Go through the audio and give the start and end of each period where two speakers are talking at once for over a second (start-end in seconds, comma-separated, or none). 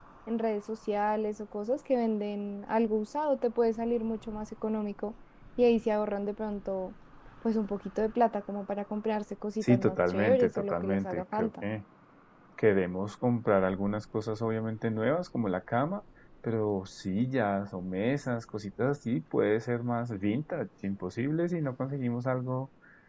9.6-11.7